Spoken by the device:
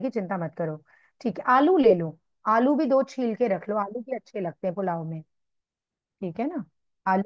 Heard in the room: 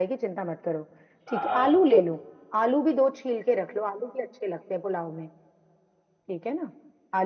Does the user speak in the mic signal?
Yes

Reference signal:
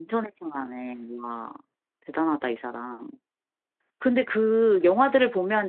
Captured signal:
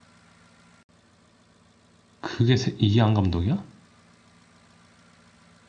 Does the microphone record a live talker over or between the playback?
Yes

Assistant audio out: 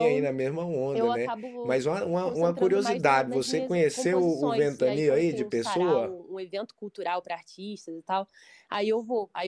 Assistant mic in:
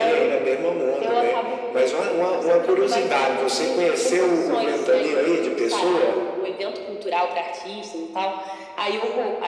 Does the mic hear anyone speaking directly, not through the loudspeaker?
No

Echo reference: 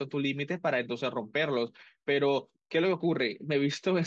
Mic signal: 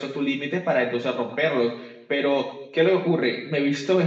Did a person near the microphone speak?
No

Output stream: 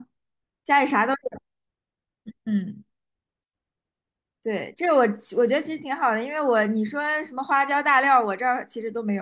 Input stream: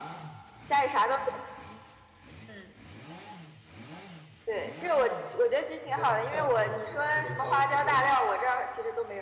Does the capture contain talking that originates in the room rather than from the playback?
Yes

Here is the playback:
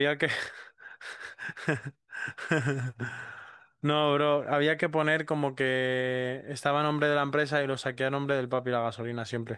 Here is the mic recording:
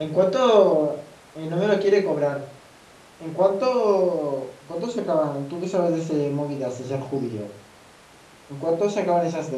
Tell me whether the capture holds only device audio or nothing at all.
No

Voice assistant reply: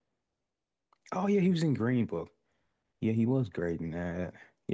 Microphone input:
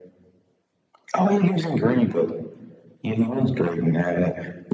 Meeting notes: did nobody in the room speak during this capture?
Yes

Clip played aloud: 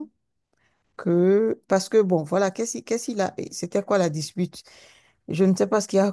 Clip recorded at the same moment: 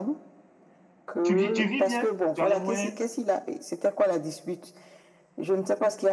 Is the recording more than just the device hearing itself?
Yes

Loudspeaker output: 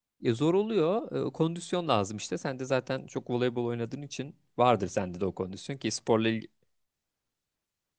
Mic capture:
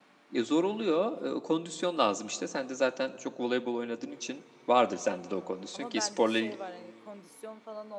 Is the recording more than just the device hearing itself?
Yes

